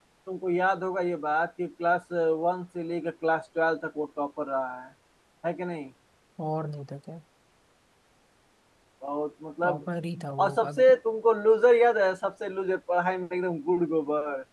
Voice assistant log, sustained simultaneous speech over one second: none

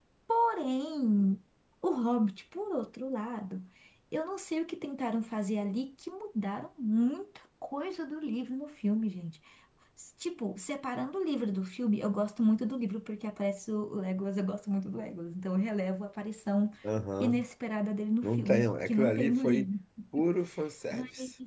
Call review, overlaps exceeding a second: present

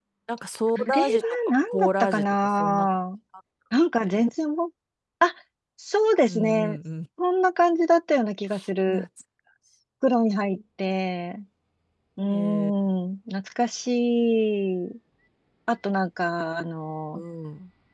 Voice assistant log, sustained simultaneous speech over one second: present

